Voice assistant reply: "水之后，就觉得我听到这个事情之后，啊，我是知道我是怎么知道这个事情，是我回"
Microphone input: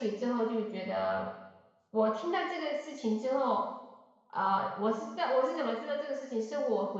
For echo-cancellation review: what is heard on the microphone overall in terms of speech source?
echo only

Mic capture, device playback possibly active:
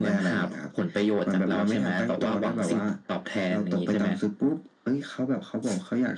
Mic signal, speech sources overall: echo only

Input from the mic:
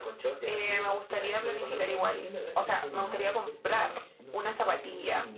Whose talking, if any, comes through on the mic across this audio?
both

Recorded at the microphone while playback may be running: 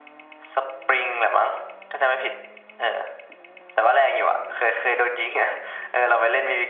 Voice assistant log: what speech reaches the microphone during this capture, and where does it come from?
echo only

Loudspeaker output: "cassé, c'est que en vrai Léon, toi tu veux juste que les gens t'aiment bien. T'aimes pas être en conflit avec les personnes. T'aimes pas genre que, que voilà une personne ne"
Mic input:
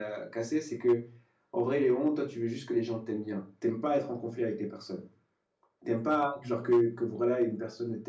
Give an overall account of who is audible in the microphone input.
echo only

